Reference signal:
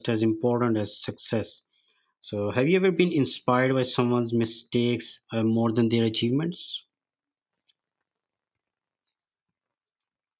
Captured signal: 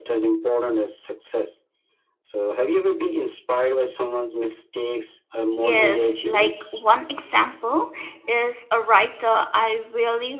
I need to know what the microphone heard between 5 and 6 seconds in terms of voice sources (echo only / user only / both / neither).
both